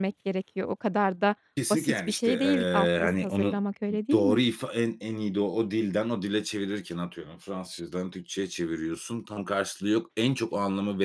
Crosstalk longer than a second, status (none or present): present